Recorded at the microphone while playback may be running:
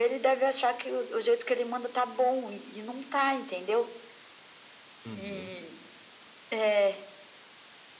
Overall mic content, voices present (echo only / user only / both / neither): both